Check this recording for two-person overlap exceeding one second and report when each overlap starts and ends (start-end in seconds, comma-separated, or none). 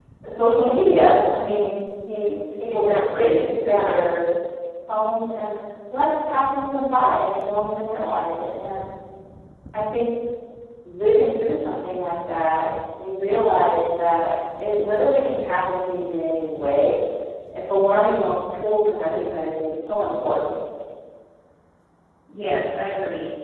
2.7-4.0